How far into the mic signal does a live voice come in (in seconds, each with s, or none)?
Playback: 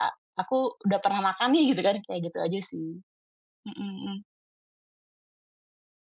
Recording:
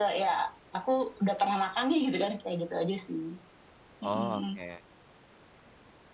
4.0 s